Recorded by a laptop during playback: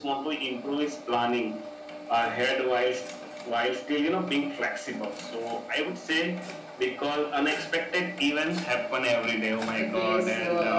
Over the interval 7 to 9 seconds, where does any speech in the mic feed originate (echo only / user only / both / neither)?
echo only